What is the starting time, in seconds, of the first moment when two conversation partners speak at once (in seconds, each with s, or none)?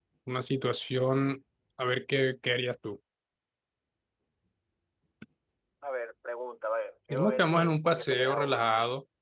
7.1 s